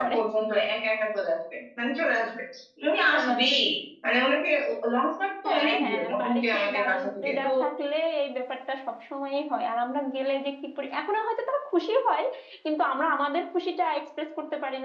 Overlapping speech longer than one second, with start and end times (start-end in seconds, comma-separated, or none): 5.5-7.5